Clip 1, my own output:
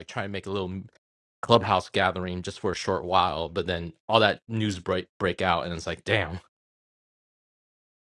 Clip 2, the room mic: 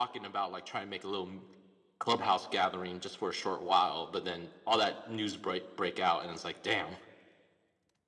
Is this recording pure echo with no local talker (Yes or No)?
Yes